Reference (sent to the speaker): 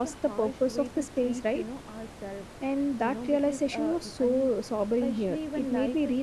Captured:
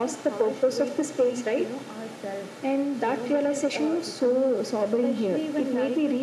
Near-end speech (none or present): none